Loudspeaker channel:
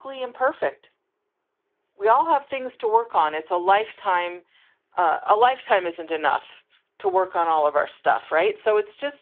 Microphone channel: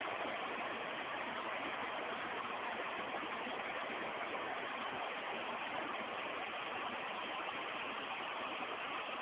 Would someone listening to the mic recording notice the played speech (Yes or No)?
No